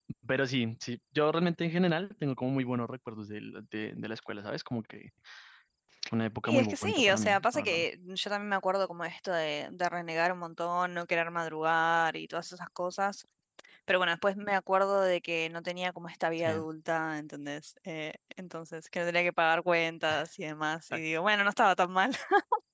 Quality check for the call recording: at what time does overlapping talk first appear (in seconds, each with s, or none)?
6.5 s